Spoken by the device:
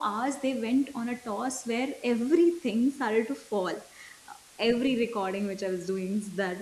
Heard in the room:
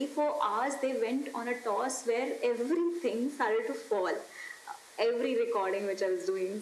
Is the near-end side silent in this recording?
Yes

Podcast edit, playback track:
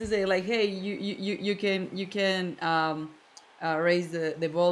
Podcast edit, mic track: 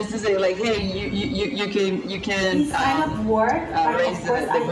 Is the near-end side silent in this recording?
No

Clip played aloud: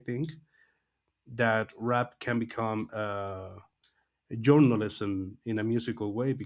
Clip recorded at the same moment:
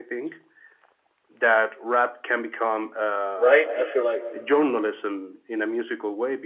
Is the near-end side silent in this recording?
No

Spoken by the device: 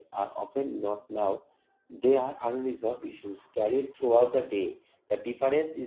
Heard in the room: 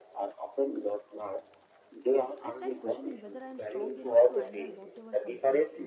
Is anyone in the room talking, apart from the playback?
Yes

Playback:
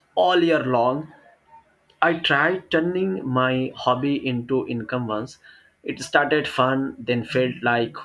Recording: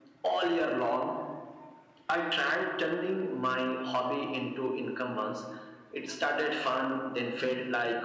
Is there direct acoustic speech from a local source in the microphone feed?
No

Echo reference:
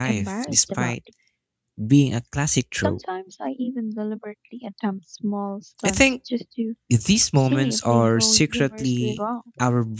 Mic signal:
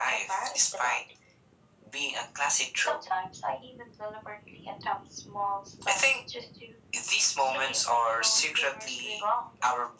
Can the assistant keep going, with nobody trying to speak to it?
Yes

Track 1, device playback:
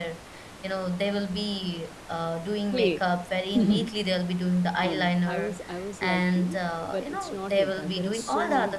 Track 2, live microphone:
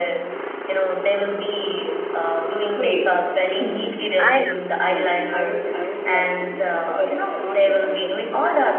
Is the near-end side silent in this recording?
No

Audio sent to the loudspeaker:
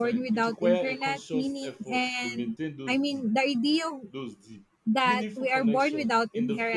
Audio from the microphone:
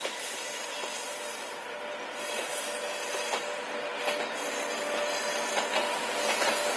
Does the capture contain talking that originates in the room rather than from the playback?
No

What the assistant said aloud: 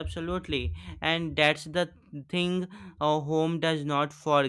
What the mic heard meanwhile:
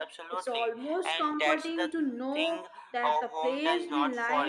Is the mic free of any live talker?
No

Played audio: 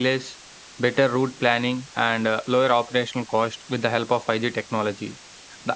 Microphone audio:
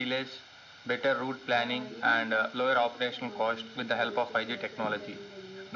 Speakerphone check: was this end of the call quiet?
No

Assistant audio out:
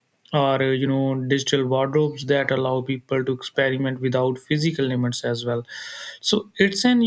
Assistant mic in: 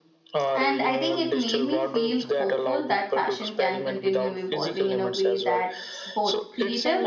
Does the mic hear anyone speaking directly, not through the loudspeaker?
Yes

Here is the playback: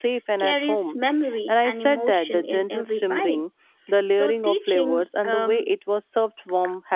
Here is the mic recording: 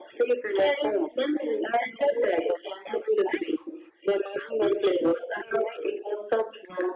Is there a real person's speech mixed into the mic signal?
No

